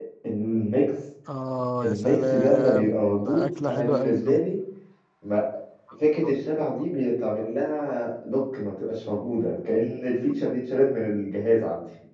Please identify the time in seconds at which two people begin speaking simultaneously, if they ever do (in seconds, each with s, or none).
1.8 s